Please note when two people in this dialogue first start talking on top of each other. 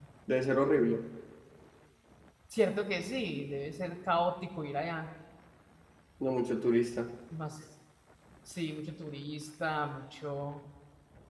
none

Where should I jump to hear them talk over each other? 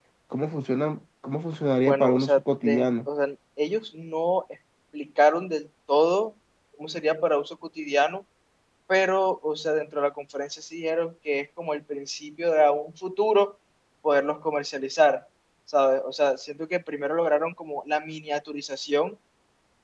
1.8 s

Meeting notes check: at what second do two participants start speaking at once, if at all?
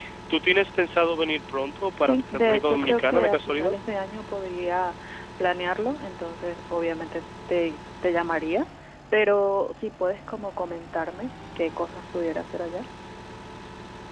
2.0 s

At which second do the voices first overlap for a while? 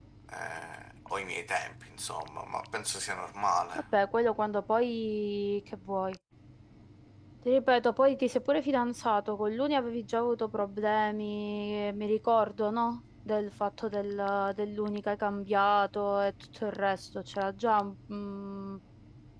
none

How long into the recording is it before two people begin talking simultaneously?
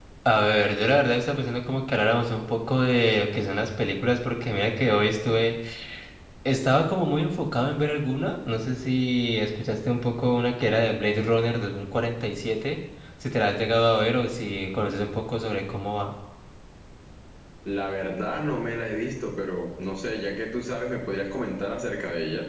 none

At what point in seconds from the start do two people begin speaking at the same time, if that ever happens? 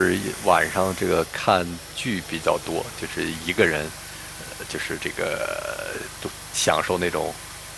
none

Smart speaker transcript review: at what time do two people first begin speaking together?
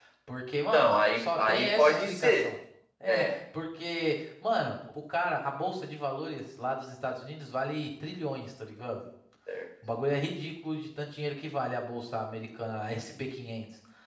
0.7 s

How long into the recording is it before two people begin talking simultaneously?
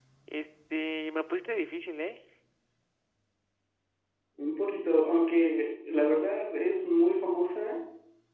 none

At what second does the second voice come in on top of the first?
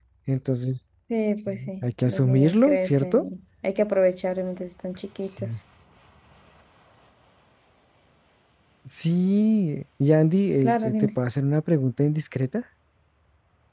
1.5 s

